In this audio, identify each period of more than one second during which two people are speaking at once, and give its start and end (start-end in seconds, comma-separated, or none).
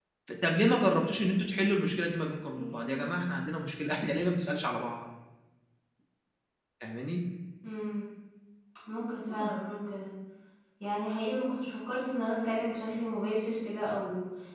none